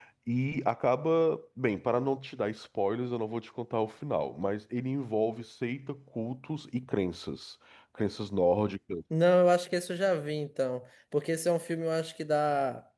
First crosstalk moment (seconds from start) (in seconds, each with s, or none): none